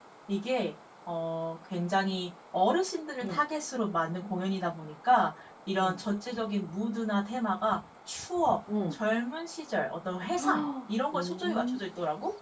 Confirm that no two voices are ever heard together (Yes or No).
No